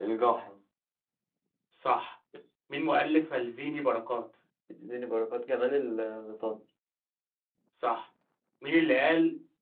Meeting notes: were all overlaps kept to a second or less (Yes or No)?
Yes